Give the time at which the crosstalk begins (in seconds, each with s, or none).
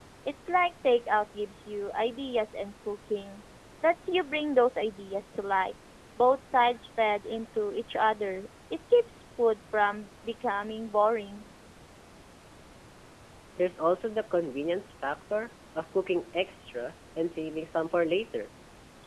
none